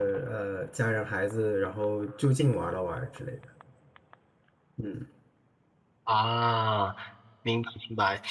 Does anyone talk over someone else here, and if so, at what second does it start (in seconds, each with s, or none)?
none